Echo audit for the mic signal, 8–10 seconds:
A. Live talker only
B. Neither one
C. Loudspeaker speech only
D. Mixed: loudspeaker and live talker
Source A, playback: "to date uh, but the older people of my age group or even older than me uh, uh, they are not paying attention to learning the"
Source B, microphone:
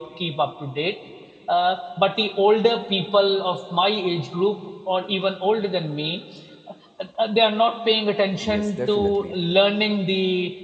D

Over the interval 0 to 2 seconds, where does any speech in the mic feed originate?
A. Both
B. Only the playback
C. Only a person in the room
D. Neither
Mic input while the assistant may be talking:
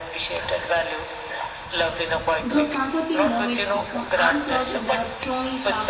B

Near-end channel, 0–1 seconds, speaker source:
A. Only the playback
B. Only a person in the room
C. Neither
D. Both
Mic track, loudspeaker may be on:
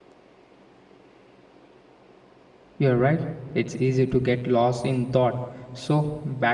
C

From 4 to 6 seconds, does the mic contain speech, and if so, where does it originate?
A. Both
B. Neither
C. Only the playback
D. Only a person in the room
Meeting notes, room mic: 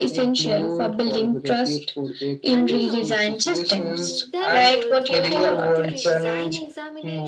A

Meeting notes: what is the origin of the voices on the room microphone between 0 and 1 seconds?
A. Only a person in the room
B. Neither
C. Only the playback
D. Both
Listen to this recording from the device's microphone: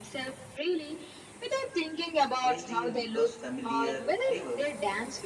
C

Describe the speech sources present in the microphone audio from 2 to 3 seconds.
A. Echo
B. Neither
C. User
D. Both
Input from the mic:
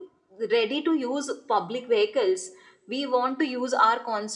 A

